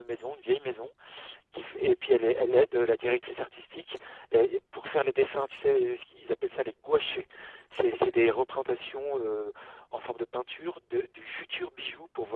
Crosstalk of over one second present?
No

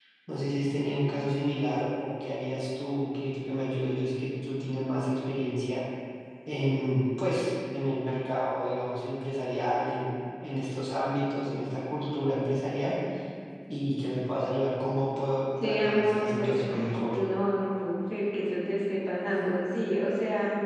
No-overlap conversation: No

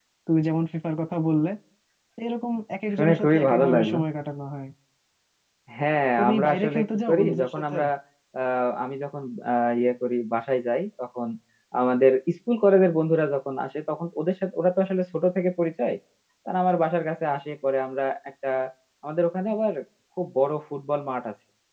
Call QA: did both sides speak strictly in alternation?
No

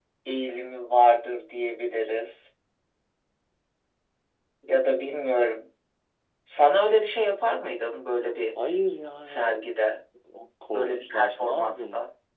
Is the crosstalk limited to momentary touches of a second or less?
No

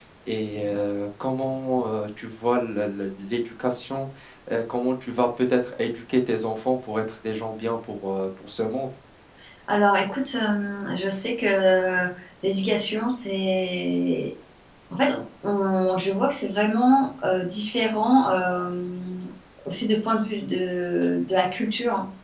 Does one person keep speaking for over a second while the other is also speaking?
No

